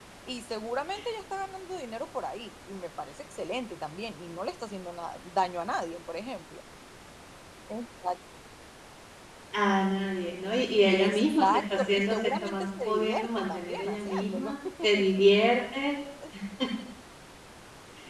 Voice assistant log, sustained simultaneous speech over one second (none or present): present